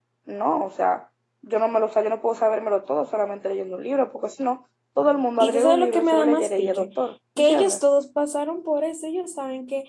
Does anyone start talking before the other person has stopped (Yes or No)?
Yes